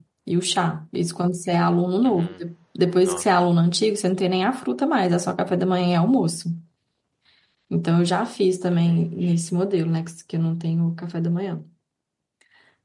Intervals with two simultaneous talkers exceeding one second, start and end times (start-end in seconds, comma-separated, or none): none